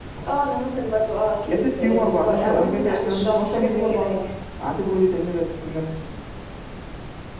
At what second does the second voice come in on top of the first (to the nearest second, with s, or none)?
1 s